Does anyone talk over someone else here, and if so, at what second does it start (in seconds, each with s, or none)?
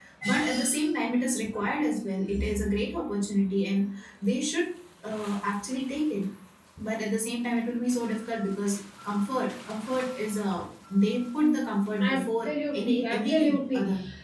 12.0 s